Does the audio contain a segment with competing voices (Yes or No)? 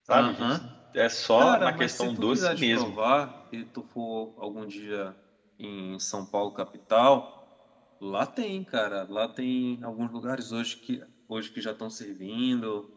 Yes